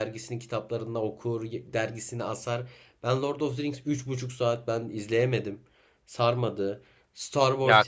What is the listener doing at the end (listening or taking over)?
taking over